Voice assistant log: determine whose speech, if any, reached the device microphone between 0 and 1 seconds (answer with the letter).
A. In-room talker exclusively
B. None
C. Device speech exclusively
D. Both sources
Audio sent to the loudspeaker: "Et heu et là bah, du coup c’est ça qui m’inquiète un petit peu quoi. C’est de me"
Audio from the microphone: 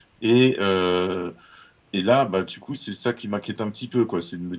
C